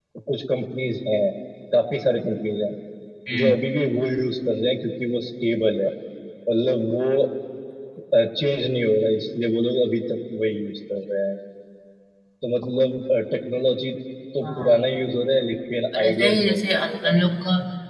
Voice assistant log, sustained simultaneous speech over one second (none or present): present